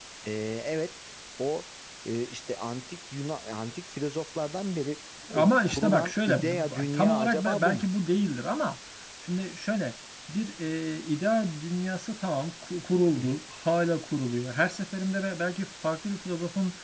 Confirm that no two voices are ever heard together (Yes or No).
No